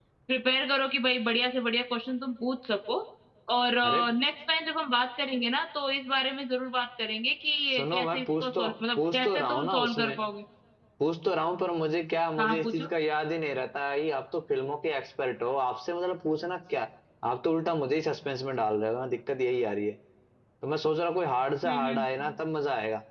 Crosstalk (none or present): present